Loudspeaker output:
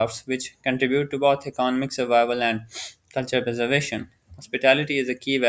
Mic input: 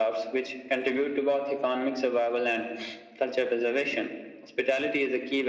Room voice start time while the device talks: none

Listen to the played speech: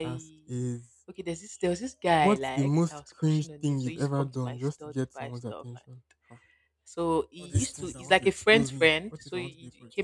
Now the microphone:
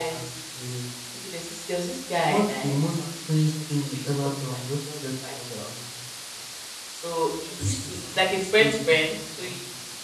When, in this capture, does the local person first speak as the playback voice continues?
none

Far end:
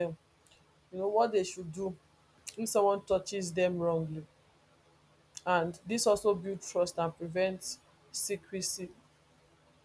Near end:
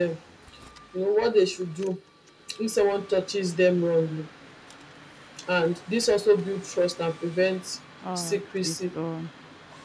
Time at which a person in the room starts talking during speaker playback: 8 s

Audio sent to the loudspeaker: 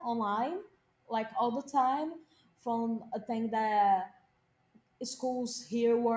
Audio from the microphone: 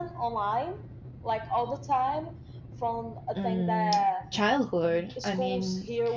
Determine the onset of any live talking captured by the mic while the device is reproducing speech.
3 s

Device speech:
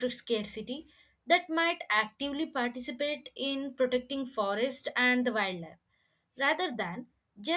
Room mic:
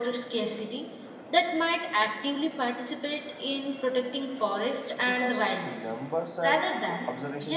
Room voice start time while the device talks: 5 s

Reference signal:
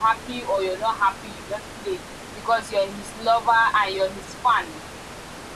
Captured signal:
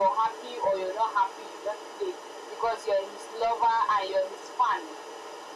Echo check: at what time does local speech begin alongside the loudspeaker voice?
none

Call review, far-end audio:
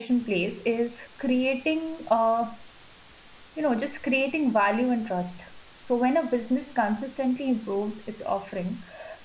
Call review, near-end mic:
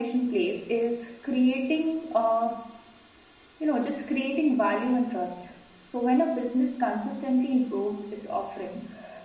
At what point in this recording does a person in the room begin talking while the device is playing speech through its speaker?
none

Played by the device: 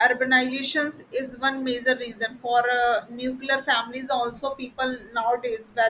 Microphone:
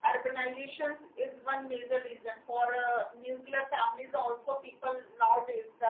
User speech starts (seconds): none

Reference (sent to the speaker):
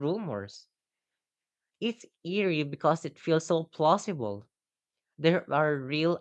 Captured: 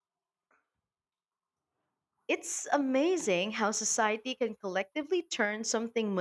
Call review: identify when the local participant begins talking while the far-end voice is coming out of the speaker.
2 s

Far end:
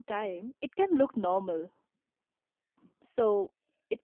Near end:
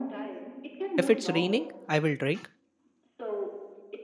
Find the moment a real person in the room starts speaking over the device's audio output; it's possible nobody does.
1 s

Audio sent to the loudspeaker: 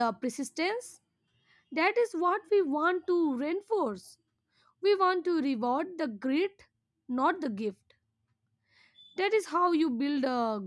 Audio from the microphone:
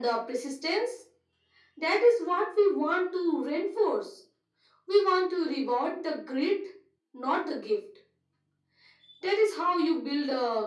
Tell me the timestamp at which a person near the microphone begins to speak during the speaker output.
none

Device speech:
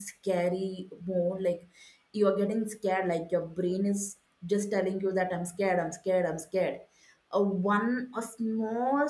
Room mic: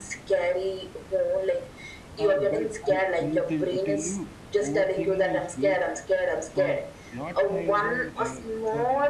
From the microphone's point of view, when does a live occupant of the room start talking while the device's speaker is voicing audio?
2 s

